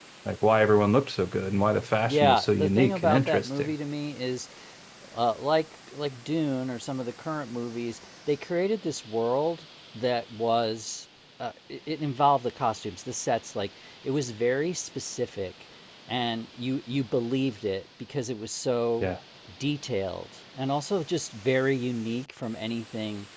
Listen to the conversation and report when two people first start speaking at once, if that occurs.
2.0 s

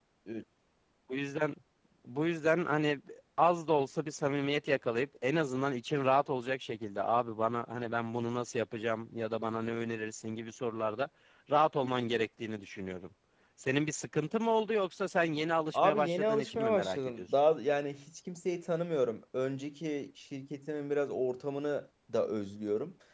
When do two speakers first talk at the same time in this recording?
15.7 s

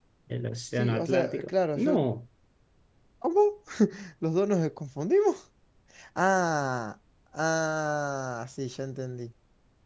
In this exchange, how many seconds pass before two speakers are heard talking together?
0.8 s

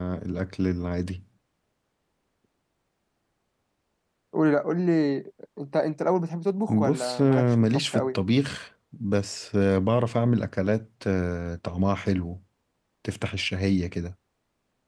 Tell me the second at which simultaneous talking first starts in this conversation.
6.7 s

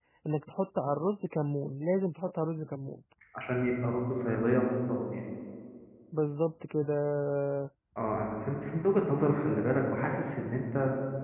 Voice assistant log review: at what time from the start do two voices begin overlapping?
none

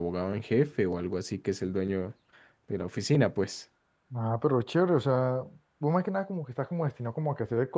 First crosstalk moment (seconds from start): none

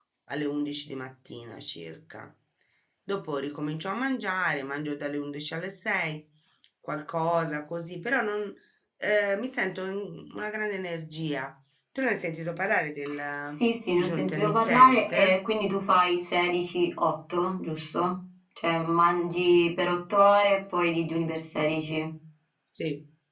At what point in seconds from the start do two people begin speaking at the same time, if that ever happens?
14.0 s

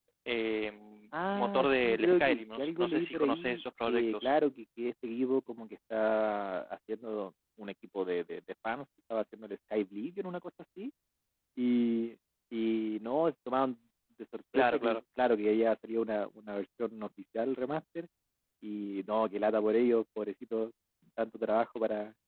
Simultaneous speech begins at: 1.4 s

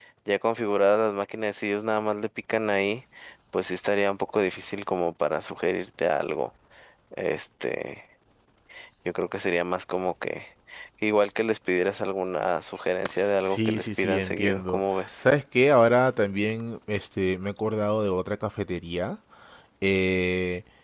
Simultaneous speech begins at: 13.2 s

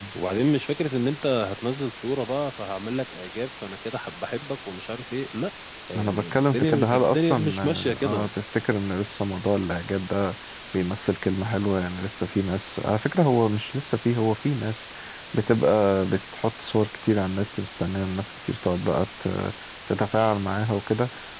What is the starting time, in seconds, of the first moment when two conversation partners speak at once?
6.0 s

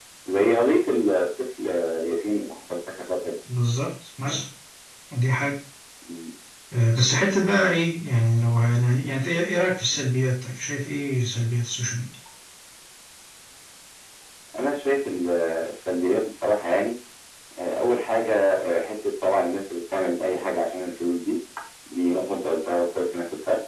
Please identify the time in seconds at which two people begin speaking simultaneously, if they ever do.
none

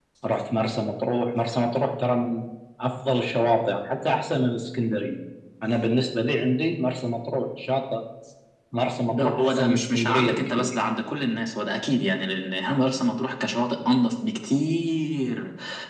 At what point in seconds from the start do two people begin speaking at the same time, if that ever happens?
9.1 s

